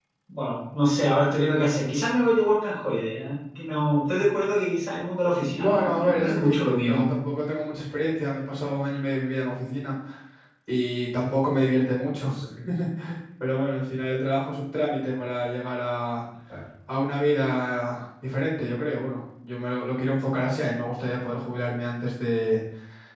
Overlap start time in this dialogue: 5.6 s

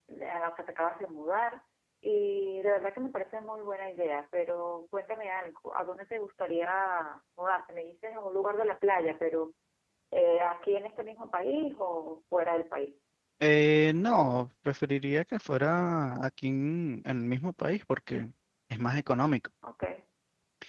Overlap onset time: none

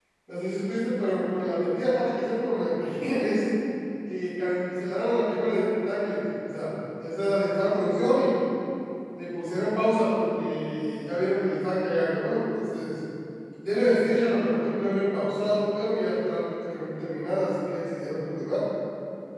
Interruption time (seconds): none

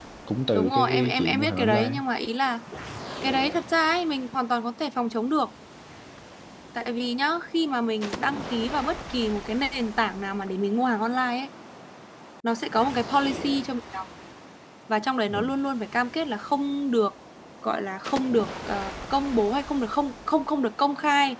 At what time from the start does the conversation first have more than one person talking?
0.6 s

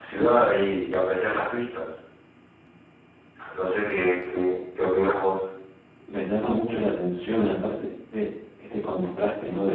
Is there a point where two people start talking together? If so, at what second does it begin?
none

